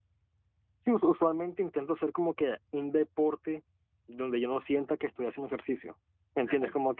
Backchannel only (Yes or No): Yes